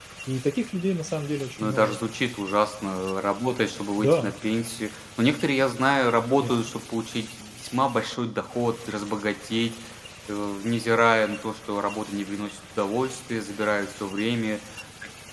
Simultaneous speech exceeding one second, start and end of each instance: none

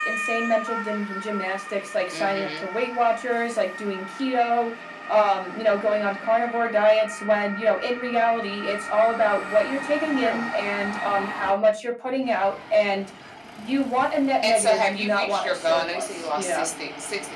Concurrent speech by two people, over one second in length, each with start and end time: 14.4-16.6

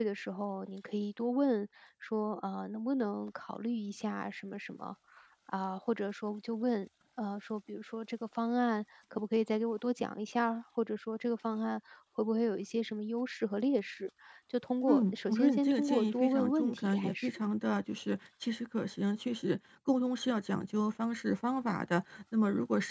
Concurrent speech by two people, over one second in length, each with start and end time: 14.9-17.4

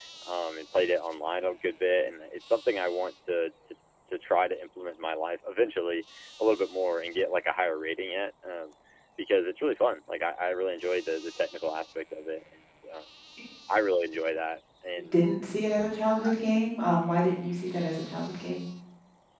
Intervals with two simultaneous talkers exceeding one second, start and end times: none

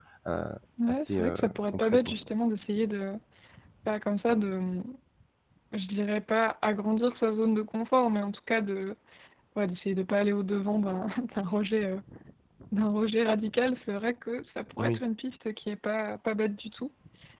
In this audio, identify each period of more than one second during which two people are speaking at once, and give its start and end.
0.9-2.1

